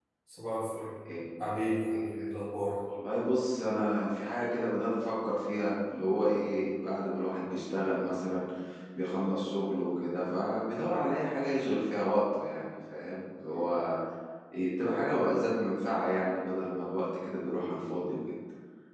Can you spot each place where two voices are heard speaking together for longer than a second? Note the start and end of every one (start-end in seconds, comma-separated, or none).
none